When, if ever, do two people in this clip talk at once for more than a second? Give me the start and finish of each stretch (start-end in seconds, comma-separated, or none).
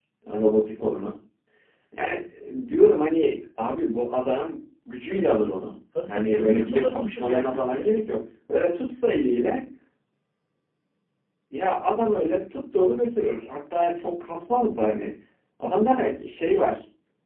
6.1-7.9